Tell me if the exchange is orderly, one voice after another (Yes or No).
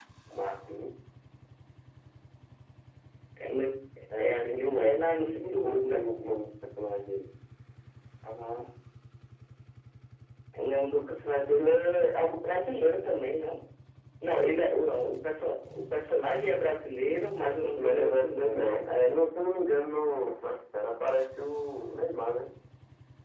No